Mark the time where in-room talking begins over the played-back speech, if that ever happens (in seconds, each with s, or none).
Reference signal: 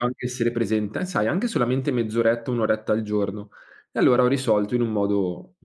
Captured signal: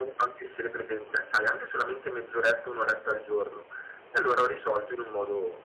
none